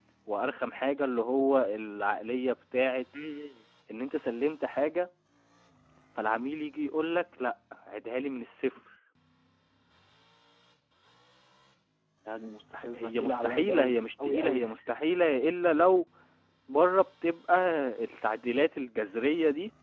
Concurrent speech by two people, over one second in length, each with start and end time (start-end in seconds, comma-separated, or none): 12.9-14.8